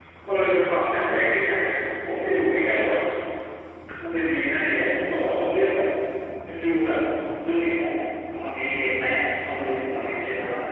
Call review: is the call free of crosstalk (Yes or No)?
Yes